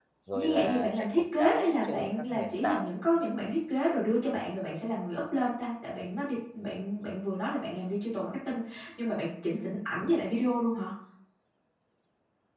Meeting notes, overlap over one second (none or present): present